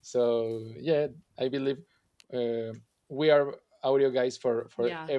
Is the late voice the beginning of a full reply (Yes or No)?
Yes